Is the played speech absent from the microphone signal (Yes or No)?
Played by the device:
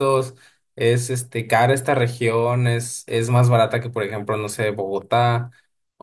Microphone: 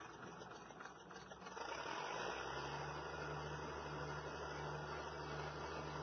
Yes